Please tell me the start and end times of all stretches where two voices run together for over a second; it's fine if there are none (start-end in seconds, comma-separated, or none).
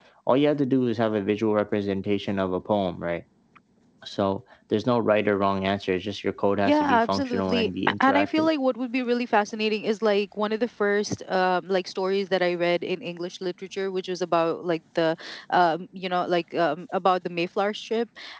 6.7-8.5